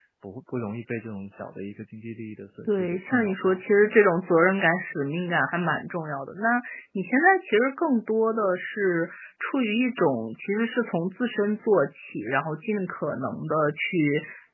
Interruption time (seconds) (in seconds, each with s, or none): 2.7 s